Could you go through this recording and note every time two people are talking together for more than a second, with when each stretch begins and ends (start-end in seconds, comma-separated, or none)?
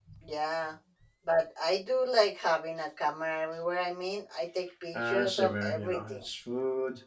4.9-6.2